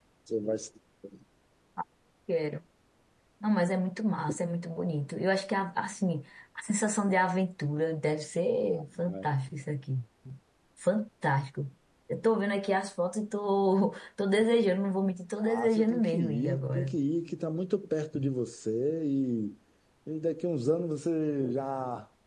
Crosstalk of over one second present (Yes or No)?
Yes